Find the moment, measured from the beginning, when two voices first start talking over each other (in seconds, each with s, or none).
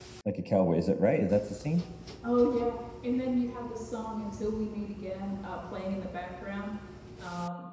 none